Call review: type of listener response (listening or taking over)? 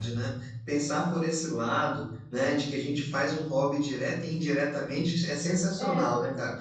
listening